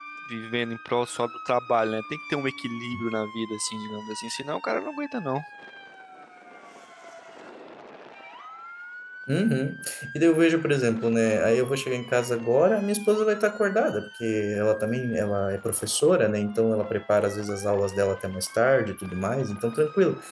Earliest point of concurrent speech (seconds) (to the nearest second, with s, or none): none